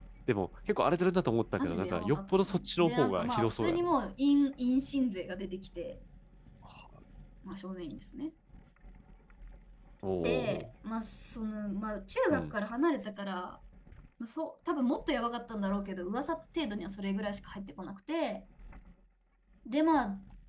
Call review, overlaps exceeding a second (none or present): present